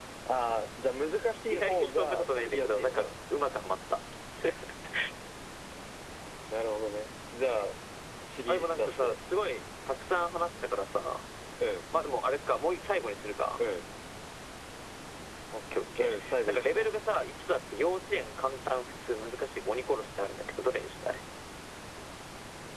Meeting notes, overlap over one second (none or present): present